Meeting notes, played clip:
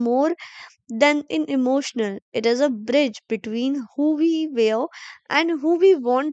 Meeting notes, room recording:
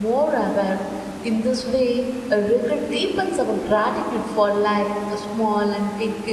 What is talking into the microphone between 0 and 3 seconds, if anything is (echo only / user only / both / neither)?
user only